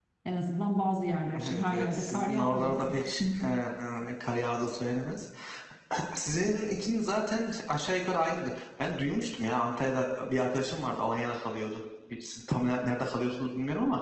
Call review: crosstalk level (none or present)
present